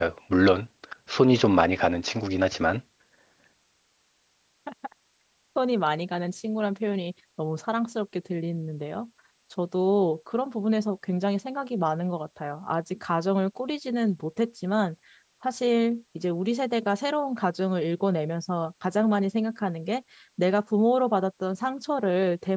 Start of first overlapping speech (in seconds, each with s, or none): none